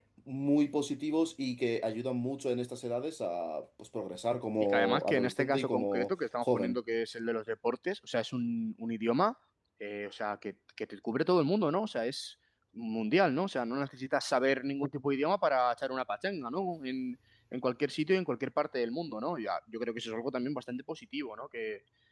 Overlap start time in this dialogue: 4.7 s

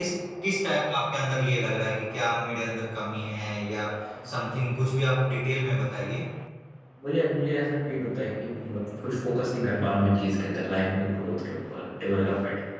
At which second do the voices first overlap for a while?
none

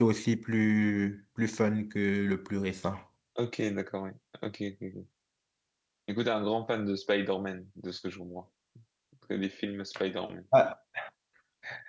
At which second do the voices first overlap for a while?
none

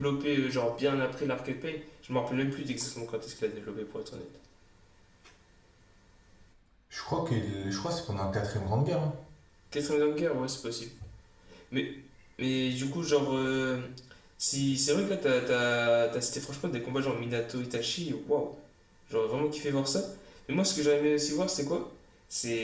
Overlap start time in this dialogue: none

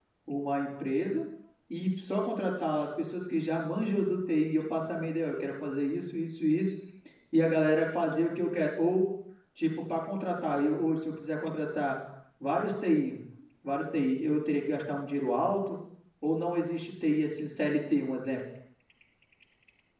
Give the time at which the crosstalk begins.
none

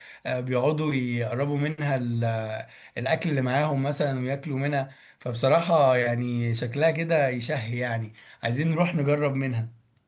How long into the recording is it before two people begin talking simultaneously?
none

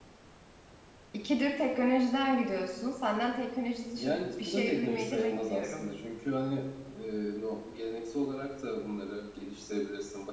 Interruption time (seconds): 4.0 s

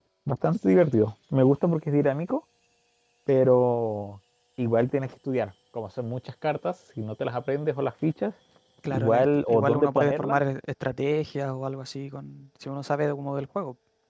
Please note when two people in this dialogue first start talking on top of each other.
8.9 s

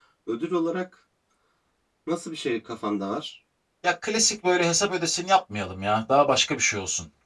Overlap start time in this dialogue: none

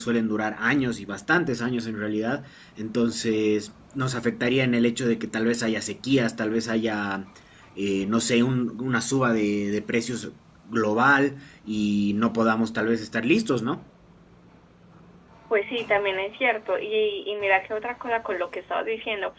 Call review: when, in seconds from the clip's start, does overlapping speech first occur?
none

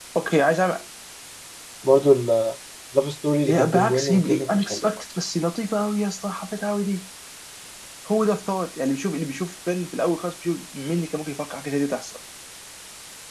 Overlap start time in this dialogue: 3.5 s

